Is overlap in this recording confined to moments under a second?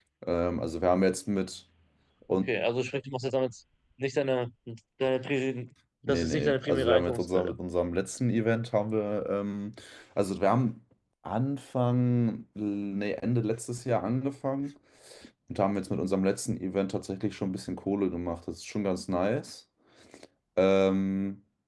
No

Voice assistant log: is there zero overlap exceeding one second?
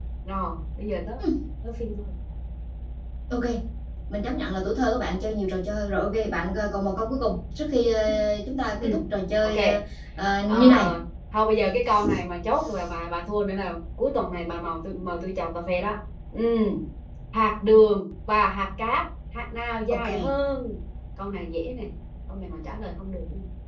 Yes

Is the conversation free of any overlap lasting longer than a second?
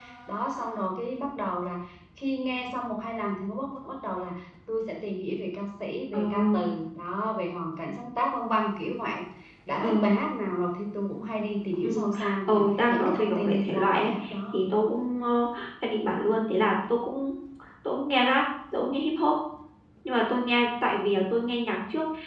No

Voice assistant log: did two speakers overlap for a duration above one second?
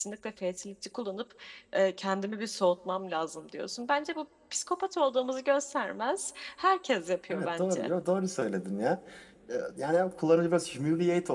No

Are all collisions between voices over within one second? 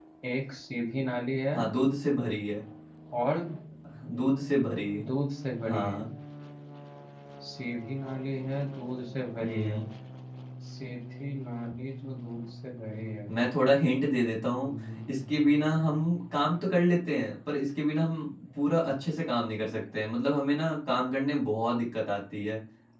Yes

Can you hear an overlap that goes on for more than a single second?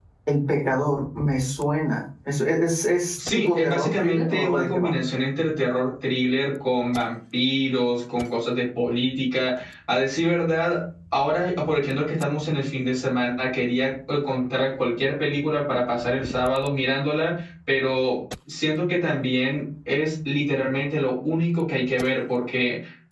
Yes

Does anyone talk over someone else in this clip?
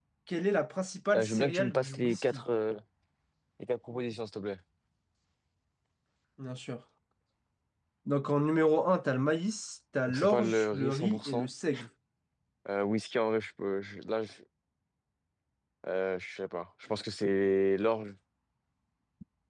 Yes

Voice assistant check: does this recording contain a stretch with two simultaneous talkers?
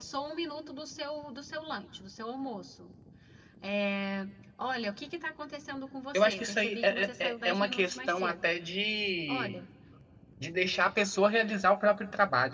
Yes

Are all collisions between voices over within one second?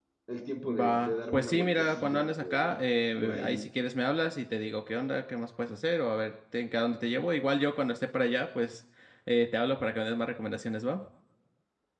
No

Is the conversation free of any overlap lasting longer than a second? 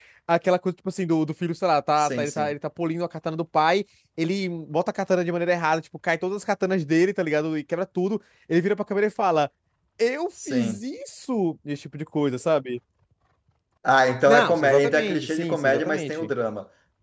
No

